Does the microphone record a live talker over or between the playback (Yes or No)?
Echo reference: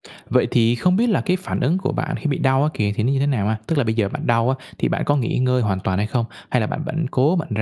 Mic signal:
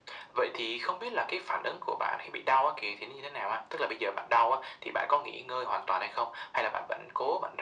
No